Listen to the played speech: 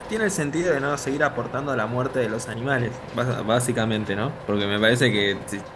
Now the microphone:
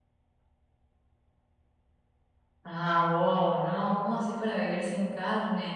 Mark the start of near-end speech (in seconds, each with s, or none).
2.7 s